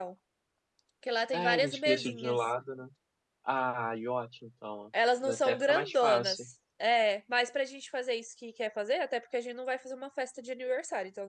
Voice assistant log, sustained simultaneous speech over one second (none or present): present